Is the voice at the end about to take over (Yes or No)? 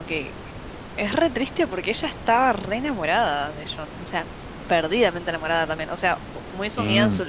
No